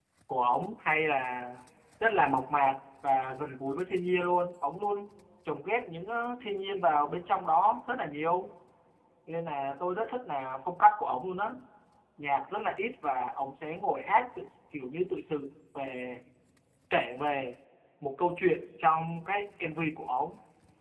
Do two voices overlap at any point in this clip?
No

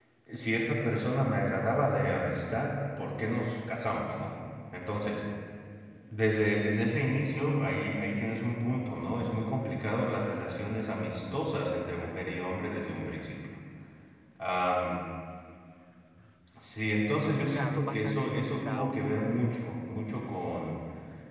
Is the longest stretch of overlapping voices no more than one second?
No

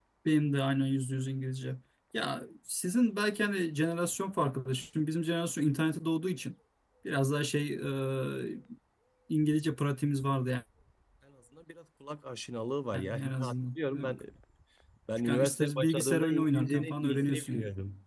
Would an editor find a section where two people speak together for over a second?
Yes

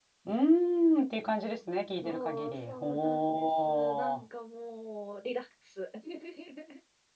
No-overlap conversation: No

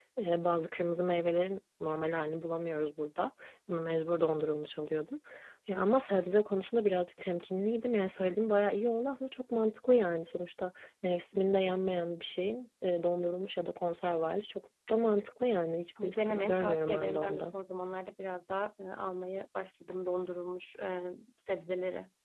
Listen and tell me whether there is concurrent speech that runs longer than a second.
Yes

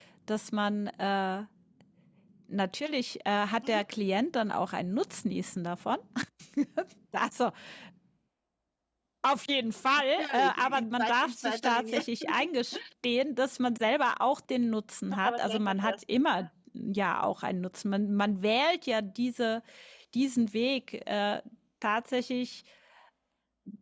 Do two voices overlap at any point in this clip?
Yes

